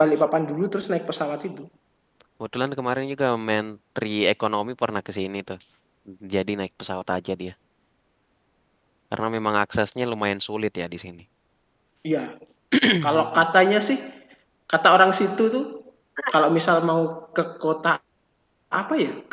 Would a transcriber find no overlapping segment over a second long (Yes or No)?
Yes